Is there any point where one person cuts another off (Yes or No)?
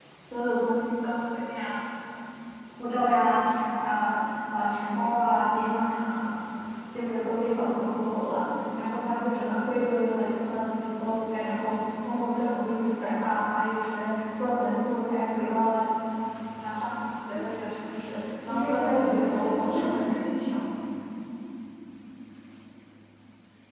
Yes